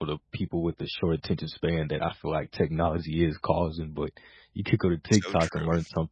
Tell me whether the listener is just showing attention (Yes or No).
Yes